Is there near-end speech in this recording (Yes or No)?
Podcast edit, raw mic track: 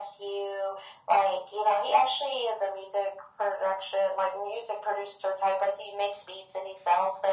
No